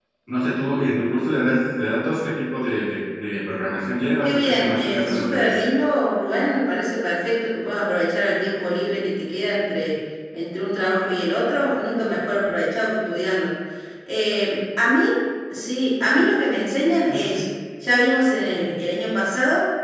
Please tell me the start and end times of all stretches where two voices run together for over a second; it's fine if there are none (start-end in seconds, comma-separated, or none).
4.2-5.6